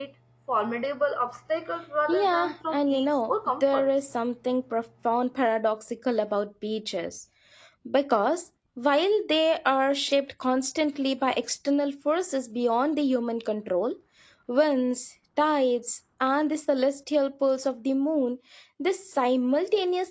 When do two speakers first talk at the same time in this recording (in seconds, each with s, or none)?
2.1 s